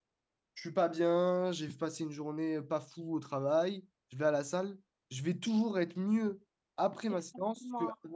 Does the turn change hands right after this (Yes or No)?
Yes